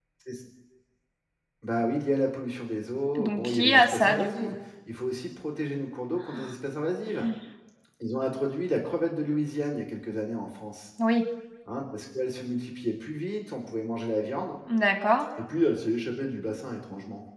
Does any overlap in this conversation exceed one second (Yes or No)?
Yes